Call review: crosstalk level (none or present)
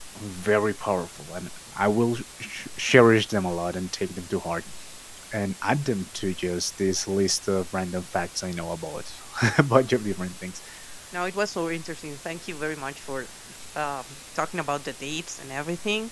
none